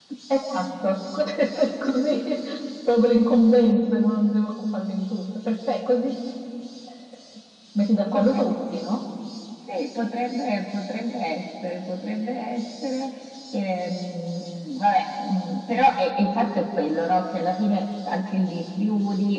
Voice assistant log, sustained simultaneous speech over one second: none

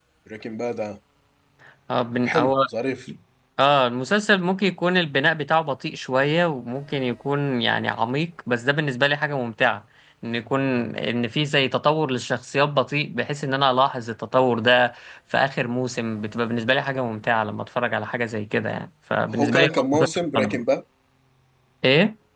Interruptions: present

